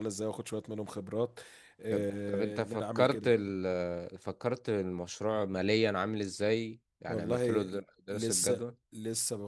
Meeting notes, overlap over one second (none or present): present